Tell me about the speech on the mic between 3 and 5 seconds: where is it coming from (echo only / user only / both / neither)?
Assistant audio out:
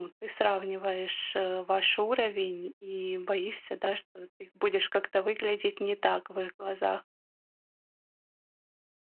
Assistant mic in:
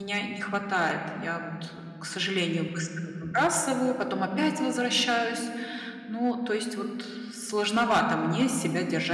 user only